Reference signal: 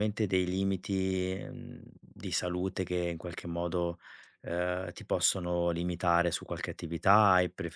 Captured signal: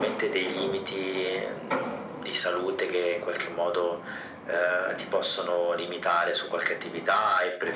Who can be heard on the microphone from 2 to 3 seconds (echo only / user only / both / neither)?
echo only